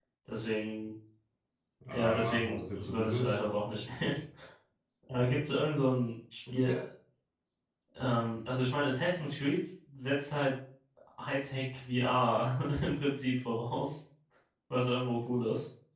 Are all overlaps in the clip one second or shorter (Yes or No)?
No